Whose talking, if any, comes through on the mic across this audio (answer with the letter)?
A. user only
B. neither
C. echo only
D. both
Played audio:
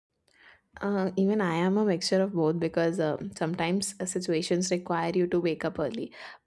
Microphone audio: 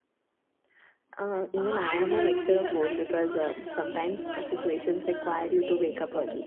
D